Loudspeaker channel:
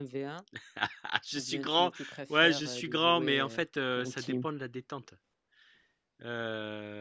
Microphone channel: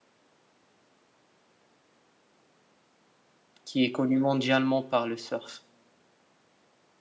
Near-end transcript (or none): qui est connu mondialement par le surf.